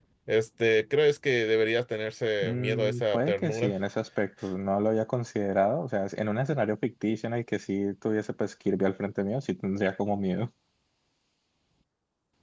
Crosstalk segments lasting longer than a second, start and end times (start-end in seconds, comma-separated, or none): 2.4-3.7